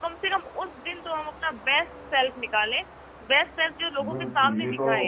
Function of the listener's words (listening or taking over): taking over